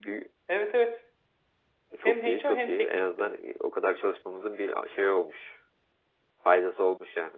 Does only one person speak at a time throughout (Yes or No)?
No